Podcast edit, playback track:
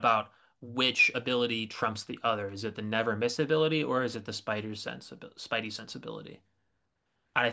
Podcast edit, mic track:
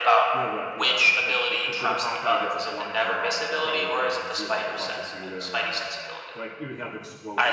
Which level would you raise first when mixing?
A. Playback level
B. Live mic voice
B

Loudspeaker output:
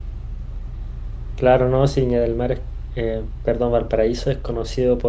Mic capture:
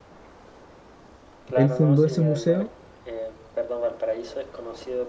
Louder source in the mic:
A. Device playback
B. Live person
B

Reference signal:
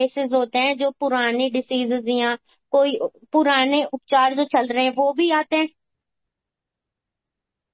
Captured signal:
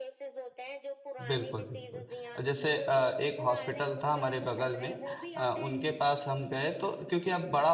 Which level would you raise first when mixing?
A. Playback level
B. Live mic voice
A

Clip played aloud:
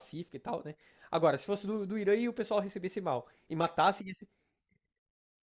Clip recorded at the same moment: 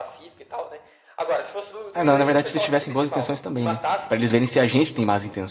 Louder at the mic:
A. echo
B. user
B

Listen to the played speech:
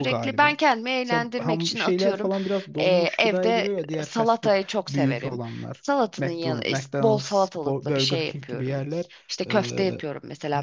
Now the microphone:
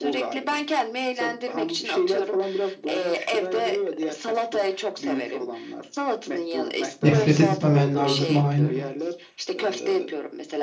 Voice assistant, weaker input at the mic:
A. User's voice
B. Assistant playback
B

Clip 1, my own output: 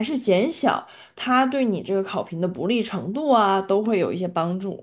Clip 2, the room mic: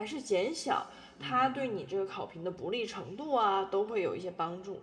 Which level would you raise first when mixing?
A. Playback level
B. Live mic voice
B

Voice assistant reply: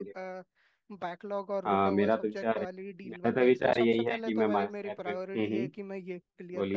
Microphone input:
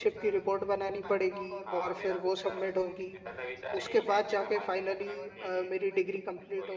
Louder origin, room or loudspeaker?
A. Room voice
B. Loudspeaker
A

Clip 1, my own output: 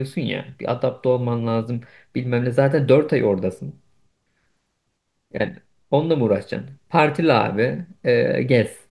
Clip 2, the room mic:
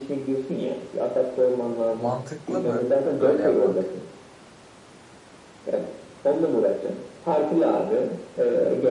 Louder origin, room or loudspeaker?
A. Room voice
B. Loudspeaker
B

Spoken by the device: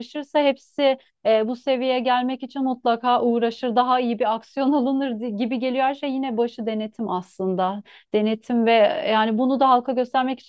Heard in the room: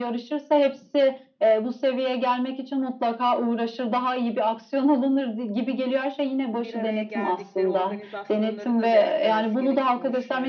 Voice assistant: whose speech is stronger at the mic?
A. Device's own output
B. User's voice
A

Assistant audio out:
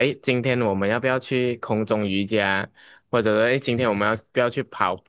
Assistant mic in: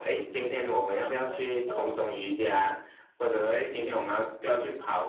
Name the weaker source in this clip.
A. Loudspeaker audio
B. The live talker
B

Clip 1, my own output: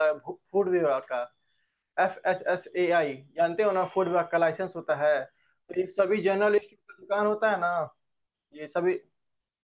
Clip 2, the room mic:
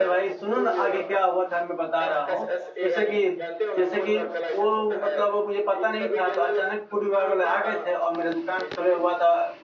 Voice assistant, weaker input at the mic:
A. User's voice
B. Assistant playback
B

